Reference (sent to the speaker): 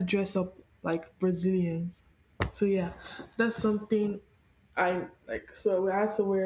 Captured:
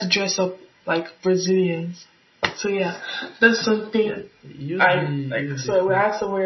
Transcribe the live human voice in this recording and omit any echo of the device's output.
yeah you'd be you'd be fun

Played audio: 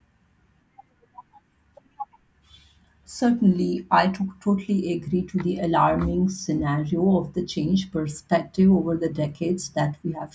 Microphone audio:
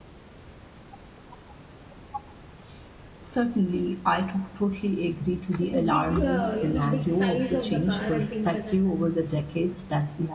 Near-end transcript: The big, uh, you know, big size of the car and things like that.

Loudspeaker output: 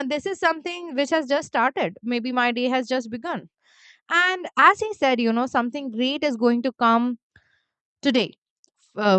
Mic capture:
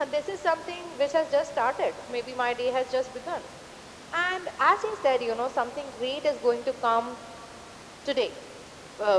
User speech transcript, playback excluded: none

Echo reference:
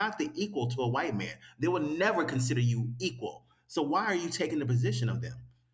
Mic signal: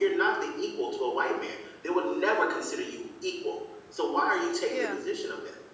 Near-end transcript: Yeah.

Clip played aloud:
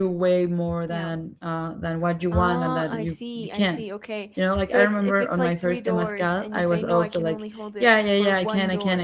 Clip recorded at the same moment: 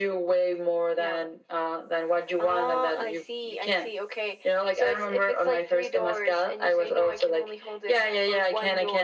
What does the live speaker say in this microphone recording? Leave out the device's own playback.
none

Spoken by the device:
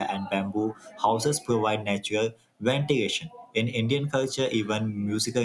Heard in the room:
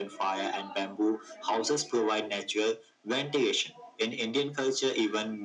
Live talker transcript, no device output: none

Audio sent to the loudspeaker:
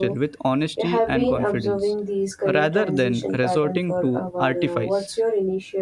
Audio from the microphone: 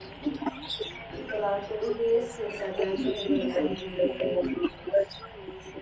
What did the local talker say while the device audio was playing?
People are told their skills are transferable and to degree

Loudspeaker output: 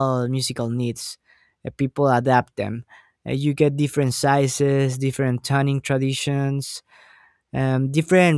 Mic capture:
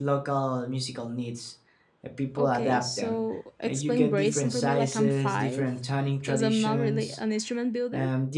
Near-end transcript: Okay, so explain bracing for me like I'm five, because I'm not really an instrument builder.

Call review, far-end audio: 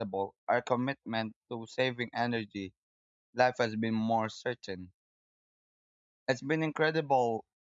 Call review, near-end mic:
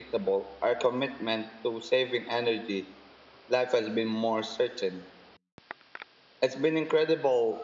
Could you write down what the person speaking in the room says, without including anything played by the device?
none

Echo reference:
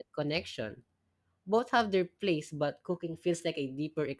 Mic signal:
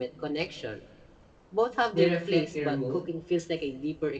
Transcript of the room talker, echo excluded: They reflect your mood,

